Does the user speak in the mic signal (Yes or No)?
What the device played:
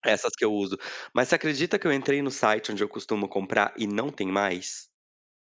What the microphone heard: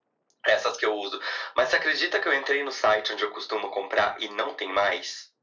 No